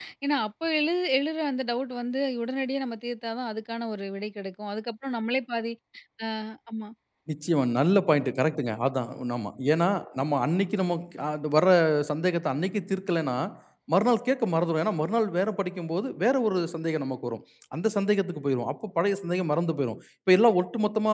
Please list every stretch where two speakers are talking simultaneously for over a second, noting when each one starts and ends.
none

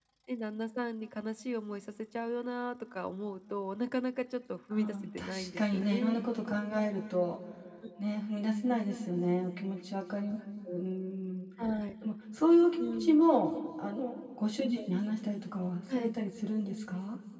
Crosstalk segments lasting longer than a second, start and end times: 4.7-6.2

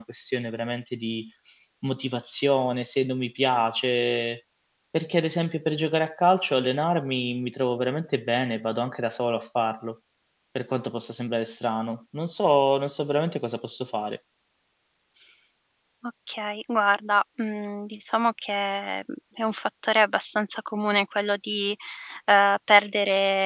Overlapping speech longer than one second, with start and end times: none

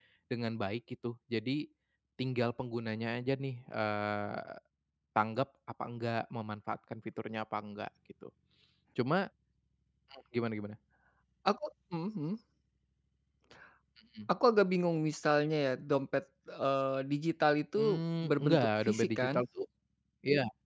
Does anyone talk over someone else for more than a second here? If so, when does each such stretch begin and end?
17.8-19.4

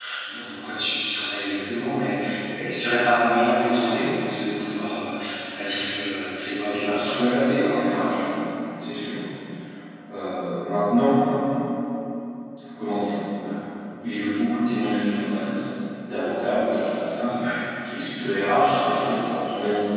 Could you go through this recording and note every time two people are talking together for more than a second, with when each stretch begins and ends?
none

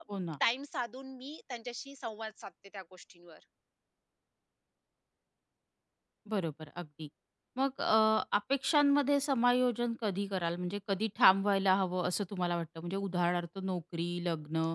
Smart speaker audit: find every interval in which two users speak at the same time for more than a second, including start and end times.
none

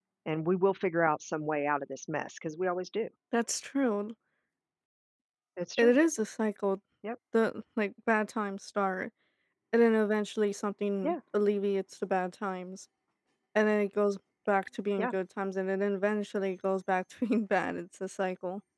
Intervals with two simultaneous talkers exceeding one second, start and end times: none

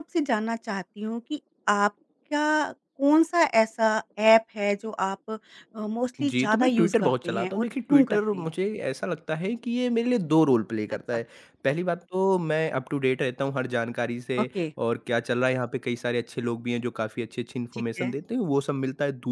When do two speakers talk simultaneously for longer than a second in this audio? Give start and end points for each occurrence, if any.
6.2-8.5

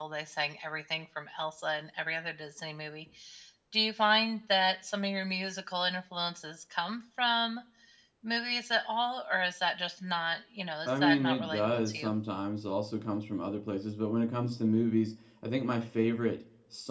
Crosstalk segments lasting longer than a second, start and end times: 10.9-12.1

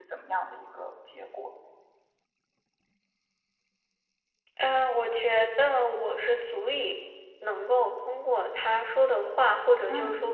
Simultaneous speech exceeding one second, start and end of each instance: none

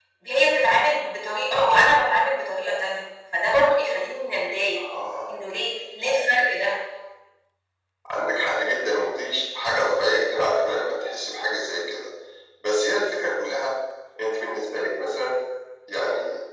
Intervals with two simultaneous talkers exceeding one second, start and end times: none

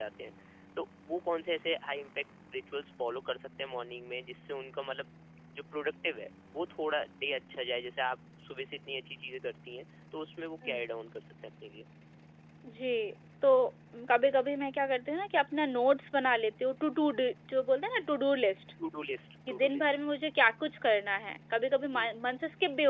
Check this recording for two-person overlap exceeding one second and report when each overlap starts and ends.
none

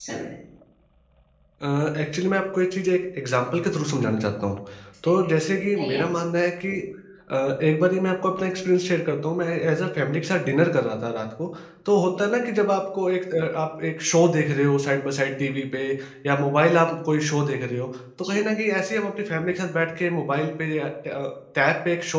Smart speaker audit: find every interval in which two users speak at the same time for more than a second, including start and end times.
none

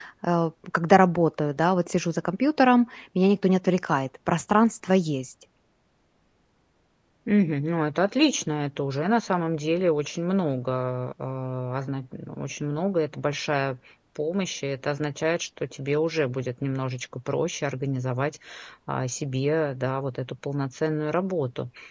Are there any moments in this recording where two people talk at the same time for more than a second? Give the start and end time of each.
none

